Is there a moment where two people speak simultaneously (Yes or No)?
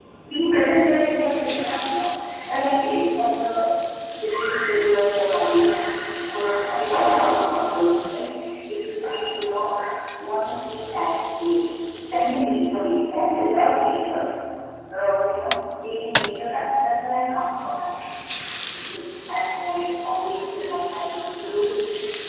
No